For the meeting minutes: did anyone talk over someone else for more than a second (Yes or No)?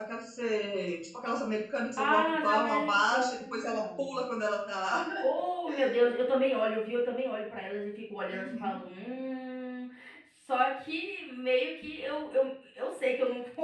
Yes